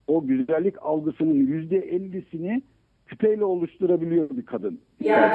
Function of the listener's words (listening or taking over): taking over